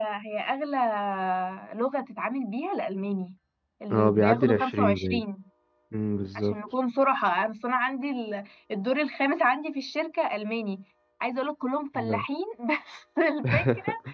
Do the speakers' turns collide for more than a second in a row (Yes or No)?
Yes